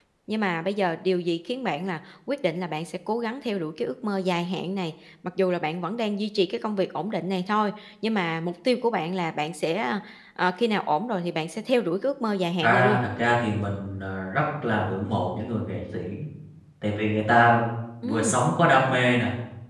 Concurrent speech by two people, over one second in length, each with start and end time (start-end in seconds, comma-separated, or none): none